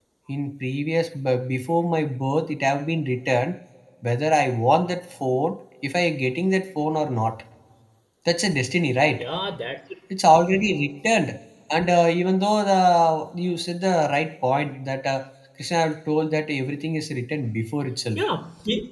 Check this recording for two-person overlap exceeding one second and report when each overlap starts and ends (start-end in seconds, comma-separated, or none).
none